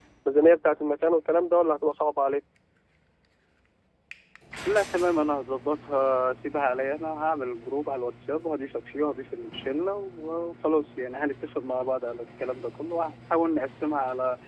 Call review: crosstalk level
none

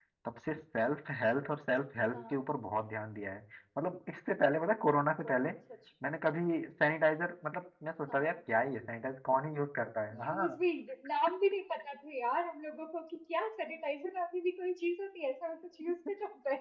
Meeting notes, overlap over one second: none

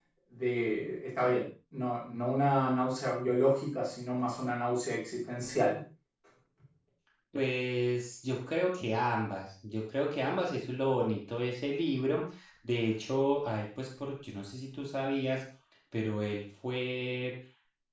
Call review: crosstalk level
none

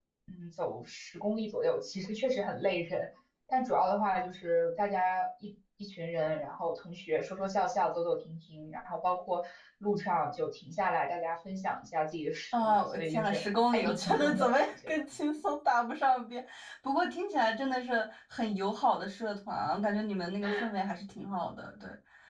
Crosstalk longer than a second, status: present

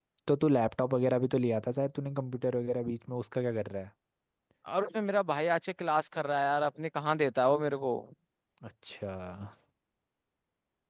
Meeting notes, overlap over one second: none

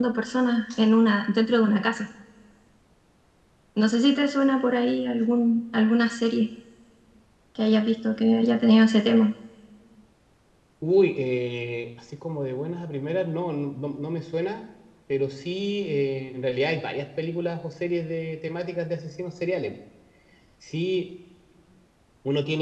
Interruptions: none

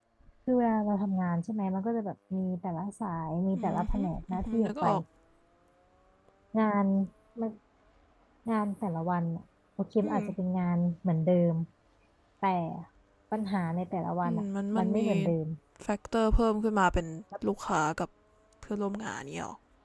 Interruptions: present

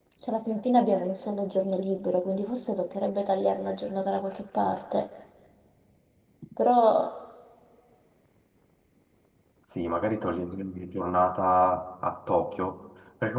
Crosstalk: none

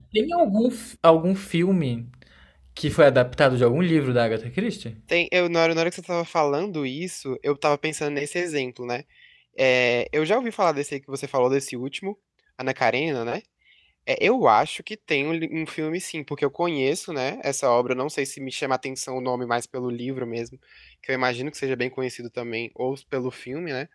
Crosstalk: none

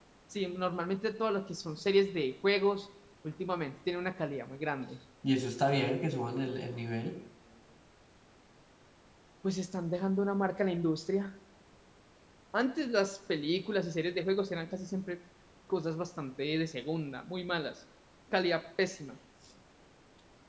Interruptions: none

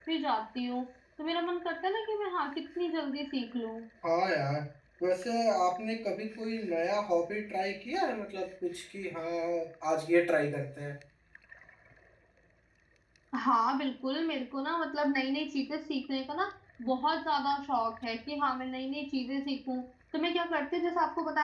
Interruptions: none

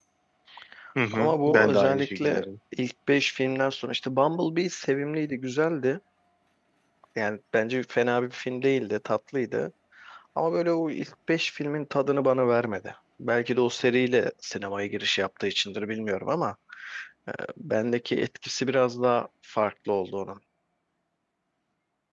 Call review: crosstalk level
present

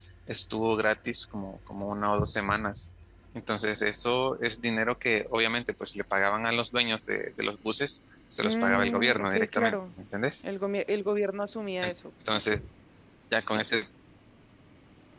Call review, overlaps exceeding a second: present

